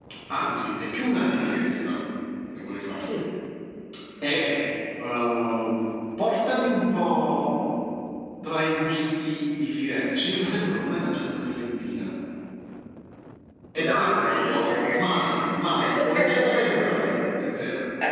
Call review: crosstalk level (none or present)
present